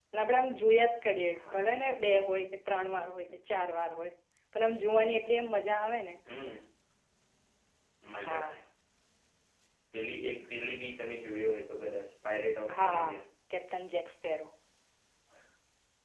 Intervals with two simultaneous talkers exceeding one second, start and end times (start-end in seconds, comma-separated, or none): none